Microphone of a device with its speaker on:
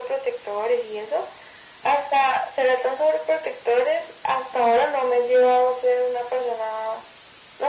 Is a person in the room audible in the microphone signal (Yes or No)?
No